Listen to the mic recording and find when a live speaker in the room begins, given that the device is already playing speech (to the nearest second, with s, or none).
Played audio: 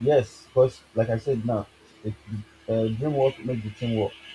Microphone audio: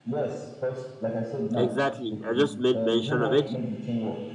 2 s